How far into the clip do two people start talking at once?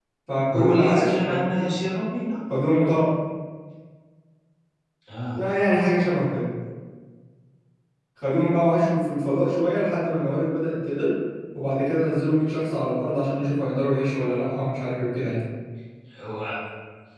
1 s

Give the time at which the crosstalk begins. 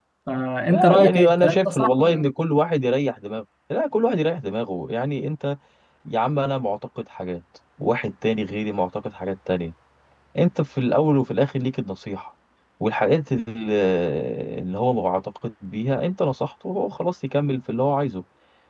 1 s

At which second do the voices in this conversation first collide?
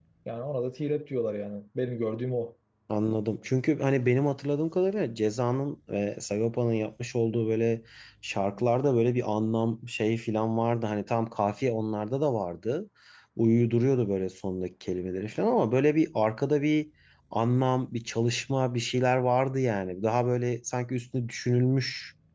none

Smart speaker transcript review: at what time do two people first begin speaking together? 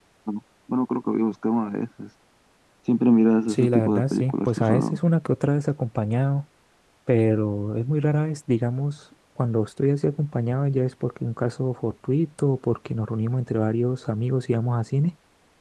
3 s

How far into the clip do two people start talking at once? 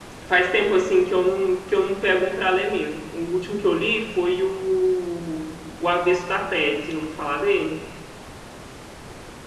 none

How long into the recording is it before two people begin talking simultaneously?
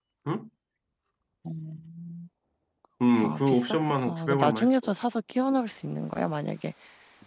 3 s

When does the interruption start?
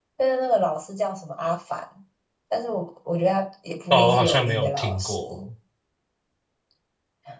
4 s

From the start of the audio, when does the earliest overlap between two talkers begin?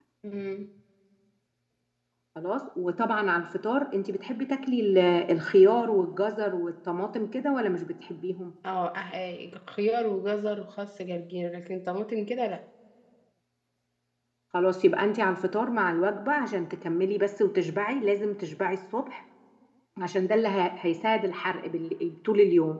none

